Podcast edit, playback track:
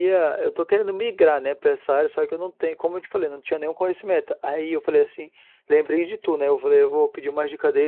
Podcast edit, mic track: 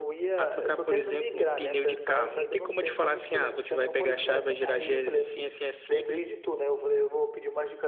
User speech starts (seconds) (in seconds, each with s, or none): 0.3 s